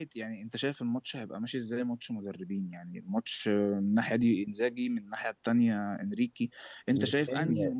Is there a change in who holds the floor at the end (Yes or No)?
No